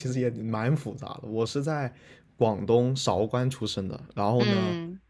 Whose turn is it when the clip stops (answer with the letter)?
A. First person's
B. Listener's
A